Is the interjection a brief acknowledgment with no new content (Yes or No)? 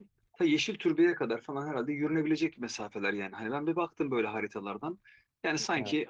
Yes